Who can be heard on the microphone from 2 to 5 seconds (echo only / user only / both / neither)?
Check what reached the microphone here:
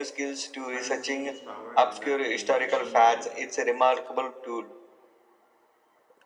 both